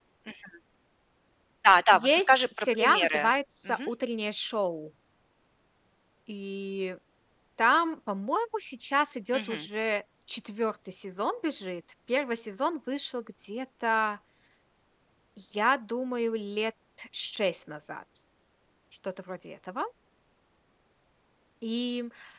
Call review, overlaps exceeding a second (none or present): present